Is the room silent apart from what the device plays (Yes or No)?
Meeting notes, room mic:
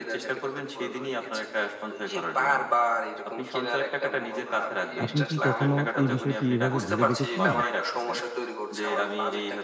No